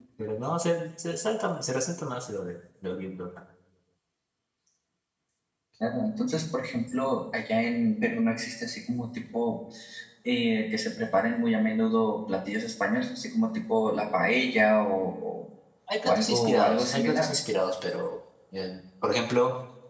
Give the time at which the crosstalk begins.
16 s

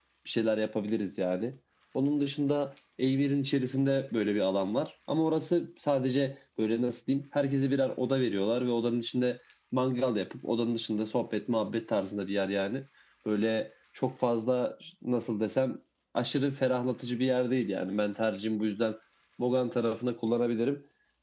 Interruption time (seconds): none

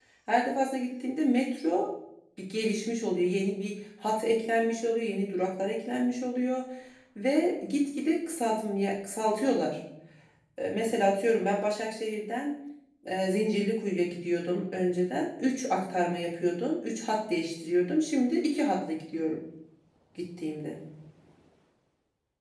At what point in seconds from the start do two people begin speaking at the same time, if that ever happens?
none

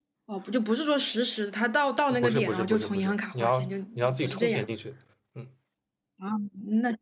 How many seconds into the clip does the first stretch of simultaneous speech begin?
2 s

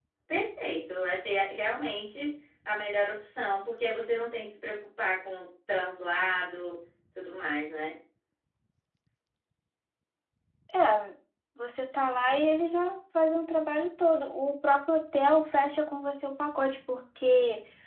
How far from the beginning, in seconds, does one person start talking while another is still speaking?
none

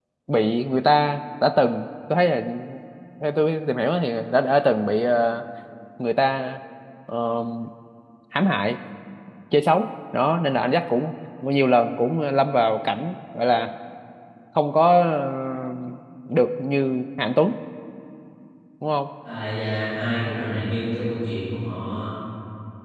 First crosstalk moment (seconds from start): none

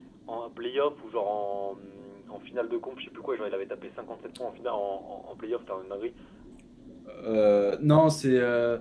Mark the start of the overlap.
none

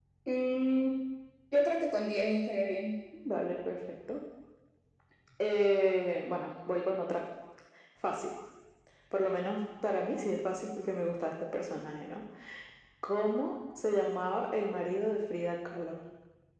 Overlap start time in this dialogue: none

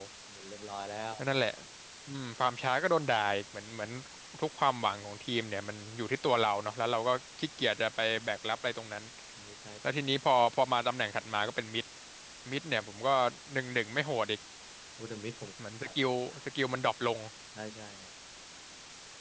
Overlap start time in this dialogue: none

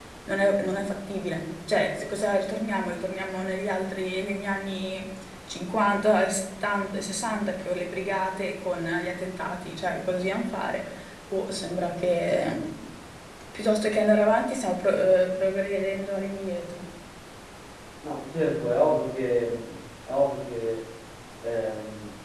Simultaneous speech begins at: none

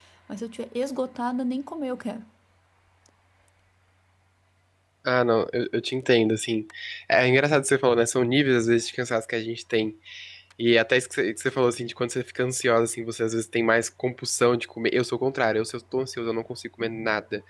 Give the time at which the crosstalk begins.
none

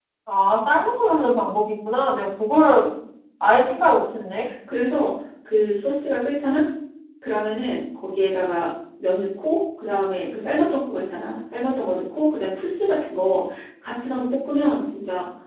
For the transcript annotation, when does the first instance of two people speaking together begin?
none

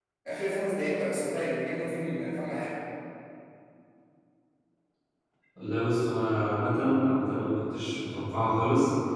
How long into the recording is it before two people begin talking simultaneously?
none

